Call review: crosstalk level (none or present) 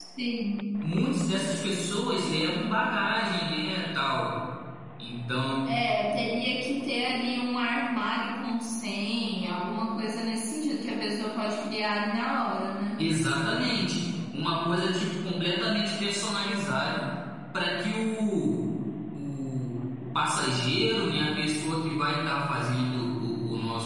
none